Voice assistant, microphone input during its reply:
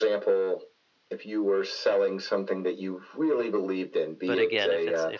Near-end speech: present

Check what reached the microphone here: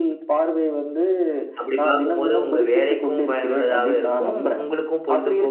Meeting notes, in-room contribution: present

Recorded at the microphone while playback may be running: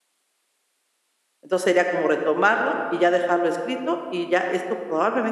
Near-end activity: present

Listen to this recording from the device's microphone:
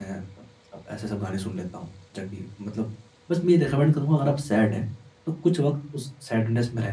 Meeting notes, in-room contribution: present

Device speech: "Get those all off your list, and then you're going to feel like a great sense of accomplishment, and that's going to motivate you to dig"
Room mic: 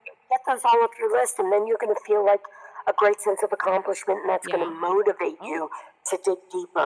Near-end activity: present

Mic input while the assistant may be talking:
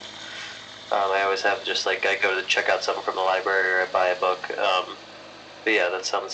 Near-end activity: none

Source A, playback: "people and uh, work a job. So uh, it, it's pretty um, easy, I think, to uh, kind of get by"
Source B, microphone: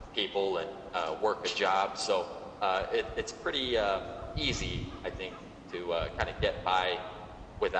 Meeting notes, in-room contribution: none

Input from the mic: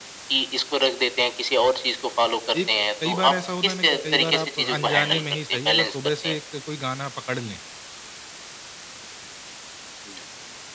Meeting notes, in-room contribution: present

